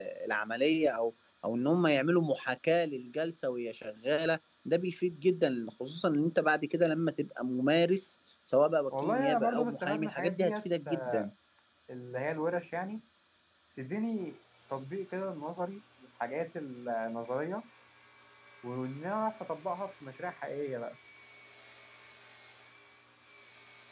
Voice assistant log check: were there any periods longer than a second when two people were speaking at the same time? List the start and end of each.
9.0-11.2

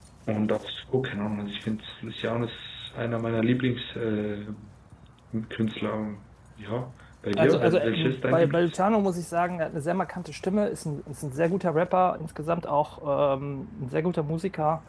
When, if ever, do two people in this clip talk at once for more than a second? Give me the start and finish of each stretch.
7.4-8.8

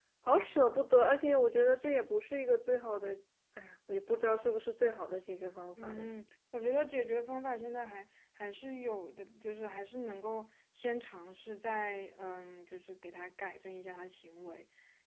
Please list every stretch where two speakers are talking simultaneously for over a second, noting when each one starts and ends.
none

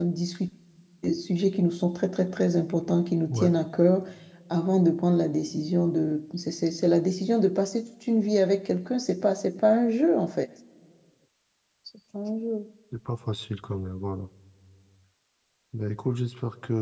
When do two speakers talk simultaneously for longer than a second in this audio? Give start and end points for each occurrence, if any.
none

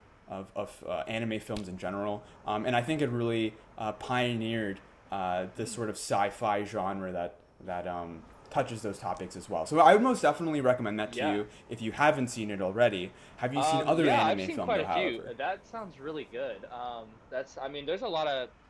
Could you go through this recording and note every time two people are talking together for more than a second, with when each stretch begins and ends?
13.6-15.3

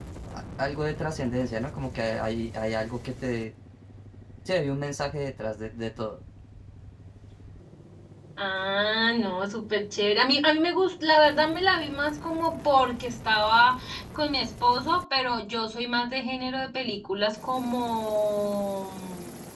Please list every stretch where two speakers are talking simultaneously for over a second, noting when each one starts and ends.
none

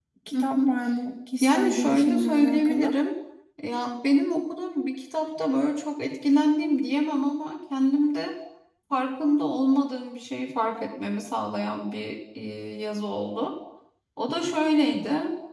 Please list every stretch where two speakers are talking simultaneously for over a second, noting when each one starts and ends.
1.4-3.0

